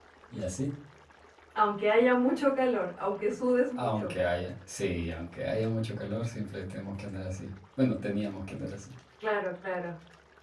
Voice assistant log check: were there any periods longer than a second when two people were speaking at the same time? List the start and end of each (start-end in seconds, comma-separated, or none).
none